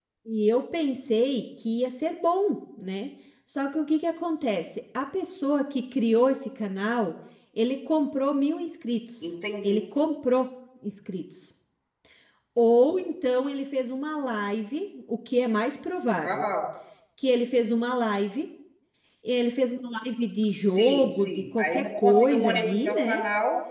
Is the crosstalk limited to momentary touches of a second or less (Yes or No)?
No